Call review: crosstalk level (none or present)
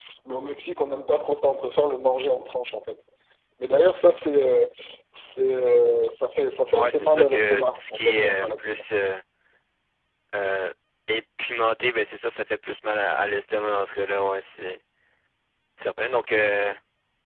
present